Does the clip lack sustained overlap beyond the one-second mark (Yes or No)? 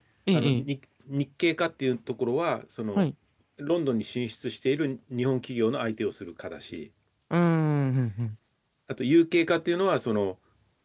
Yes